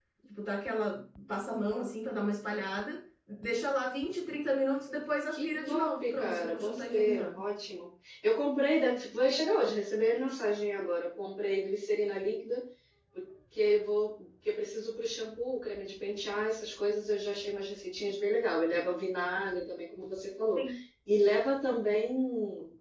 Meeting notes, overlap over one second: present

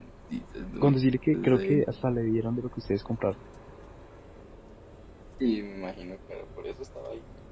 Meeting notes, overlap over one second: none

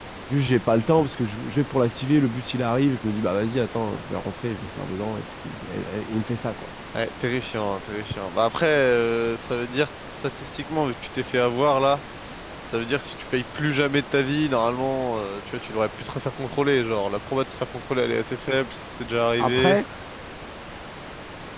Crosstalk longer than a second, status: none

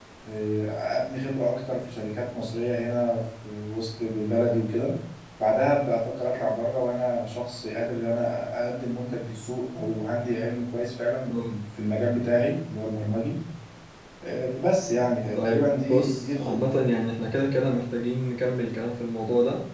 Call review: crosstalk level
present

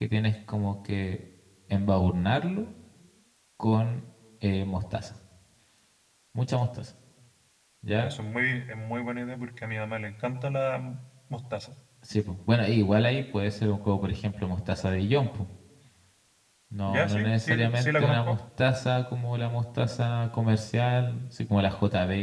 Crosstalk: present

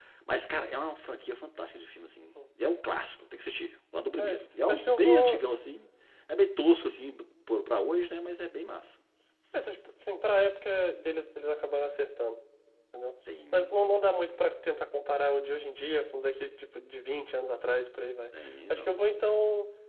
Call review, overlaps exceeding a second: present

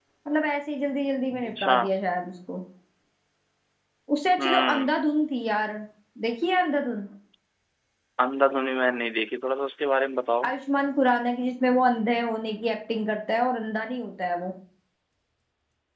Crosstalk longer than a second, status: none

